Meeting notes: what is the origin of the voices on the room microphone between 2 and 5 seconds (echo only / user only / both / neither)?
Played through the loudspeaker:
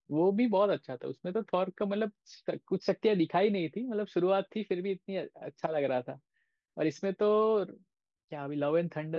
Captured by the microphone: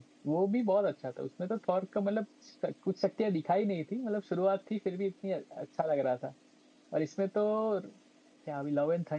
echo only